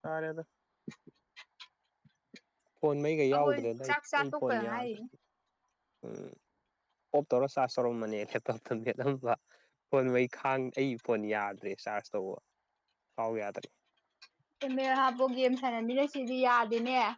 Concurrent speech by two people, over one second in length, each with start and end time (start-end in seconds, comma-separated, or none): 3.3-4.9